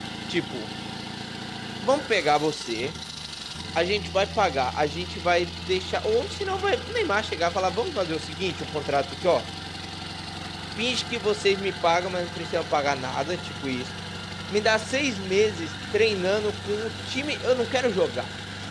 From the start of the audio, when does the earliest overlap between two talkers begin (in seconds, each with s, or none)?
none